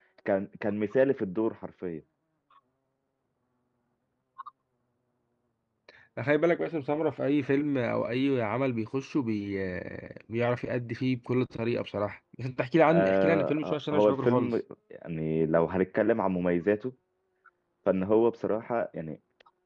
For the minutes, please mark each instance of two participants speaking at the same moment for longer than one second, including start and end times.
12.9-14.5

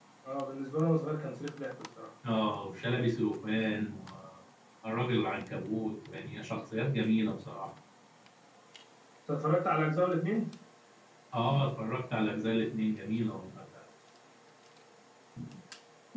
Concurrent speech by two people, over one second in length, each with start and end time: none

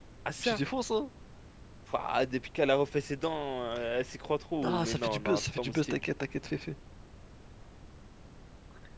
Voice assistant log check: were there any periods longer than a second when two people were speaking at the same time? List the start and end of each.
4.6-6.0

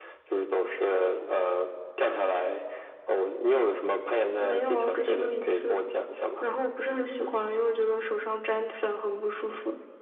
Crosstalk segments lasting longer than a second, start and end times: 4.4-5.8

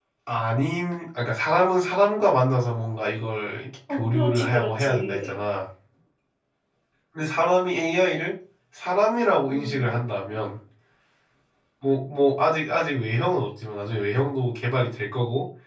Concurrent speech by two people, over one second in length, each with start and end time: 3.9-5.4

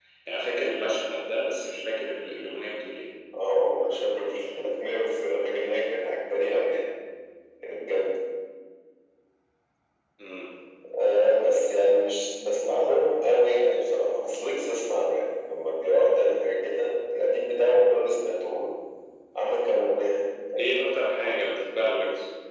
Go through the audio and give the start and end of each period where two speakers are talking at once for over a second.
none

